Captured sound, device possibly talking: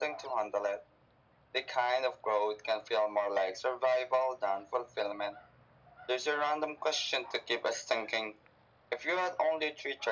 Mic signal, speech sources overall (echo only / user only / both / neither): echo only